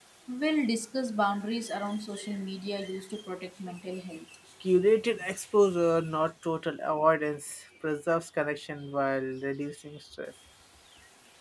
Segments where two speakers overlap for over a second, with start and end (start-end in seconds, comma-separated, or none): none